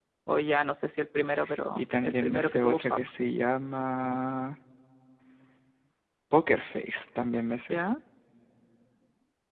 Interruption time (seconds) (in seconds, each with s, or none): 1.8 s